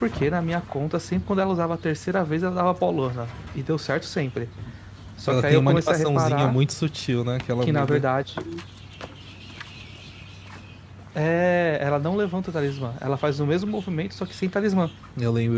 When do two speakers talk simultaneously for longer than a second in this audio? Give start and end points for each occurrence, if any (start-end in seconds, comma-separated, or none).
5.3-6.5